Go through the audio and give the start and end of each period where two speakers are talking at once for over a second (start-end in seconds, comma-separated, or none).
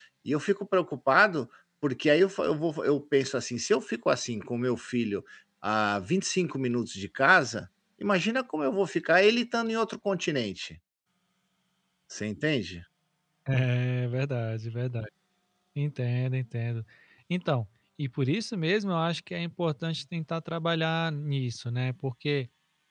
none